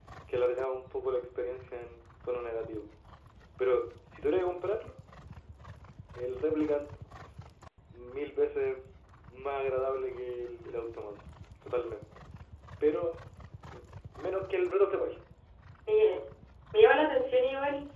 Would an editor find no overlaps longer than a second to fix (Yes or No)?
Yes